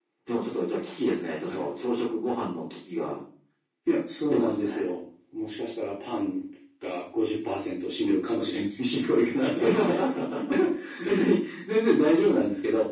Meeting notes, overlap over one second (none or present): none